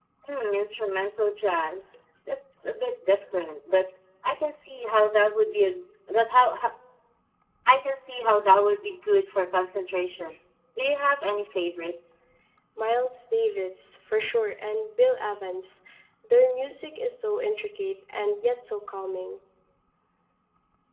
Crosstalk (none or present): none